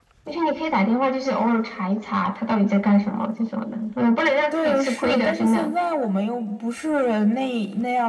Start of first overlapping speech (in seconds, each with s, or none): 4.5 s